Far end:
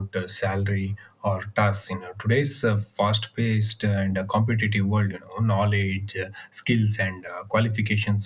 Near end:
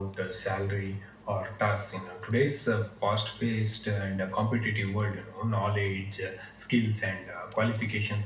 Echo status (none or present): present